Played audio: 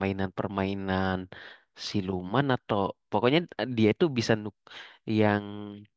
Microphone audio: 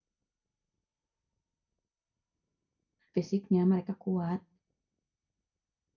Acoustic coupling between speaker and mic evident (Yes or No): No